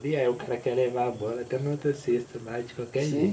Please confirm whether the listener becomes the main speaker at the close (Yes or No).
Yes